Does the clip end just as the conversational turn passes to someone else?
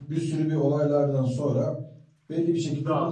No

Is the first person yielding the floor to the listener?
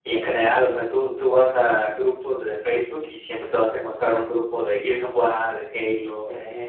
No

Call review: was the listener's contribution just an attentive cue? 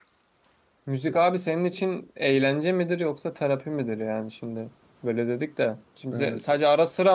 Yes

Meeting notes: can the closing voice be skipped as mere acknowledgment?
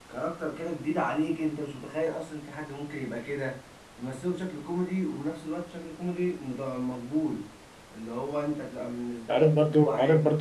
No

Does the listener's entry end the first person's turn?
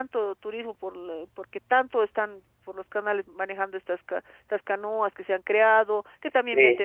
No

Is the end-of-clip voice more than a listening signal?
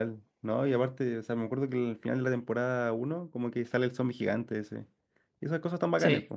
No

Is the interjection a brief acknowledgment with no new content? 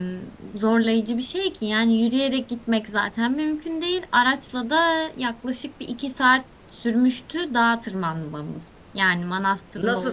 No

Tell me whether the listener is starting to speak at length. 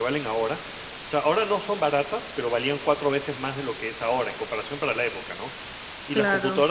No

